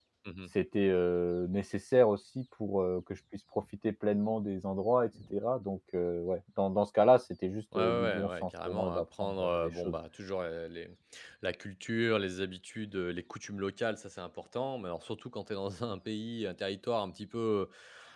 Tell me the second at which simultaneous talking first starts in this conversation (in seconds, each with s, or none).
7.7 s